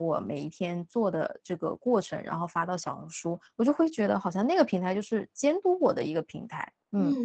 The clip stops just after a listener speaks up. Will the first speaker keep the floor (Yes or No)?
No